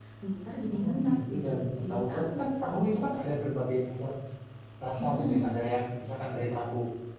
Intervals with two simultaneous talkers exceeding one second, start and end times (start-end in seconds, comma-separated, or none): 0.6-2.3